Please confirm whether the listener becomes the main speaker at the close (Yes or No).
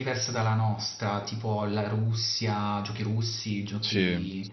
No